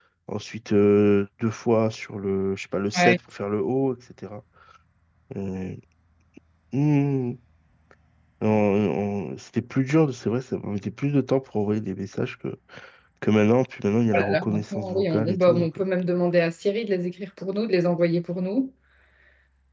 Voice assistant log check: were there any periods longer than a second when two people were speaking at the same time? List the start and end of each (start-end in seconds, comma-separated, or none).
14.1-15.7